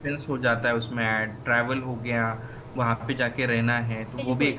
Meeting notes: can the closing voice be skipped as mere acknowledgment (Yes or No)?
Yes